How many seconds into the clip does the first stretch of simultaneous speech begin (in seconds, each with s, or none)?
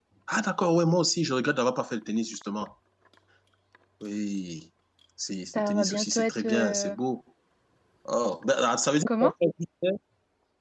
5.5 s